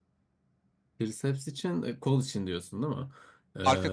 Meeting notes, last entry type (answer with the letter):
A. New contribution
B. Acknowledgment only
B